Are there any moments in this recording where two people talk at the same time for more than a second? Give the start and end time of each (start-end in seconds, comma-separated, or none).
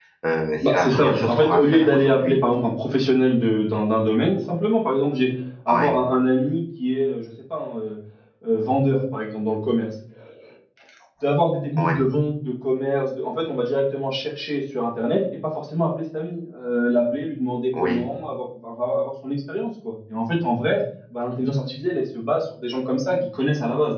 0.7-2.4